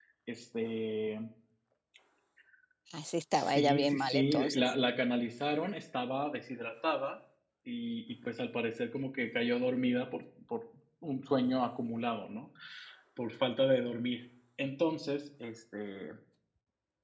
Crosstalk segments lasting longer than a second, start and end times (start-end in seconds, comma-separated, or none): 3.3-4.6